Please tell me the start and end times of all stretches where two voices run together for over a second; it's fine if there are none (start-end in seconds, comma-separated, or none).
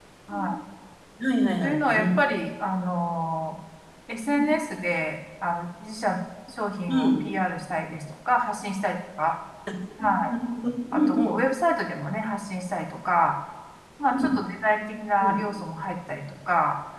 none